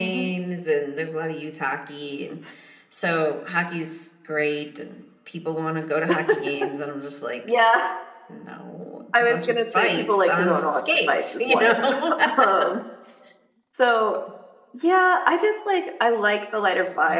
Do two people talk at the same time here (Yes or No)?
Yes